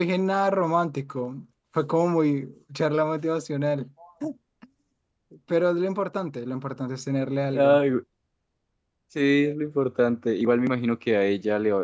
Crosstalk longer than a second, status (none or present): none